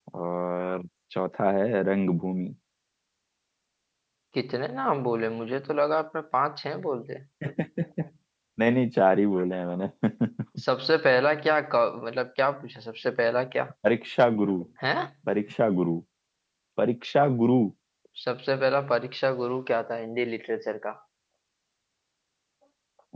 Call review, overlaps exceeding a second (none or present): none